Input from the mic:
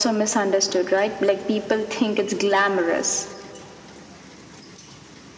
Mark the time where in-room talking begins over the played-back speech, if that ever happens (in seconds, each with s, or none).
none